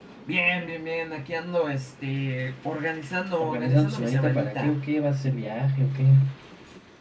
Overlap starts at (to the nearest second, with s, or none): 3 s